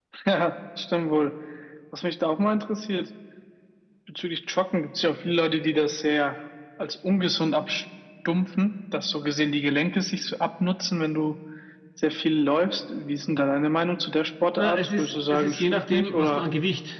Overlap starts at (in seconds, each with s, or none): 14.6 s